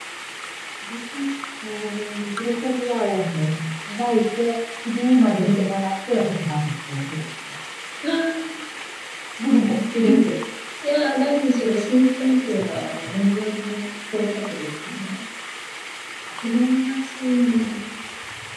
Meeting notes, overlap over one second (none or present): none